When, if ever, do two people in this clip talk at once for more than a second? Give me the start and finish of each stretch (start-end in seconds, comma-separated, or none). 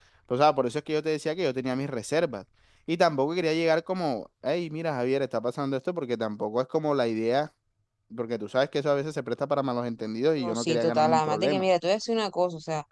10.4-11.6